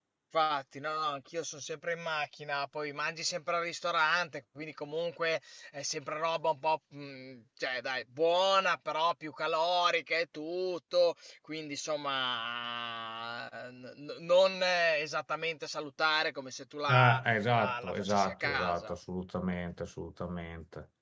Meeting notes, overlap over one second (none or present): present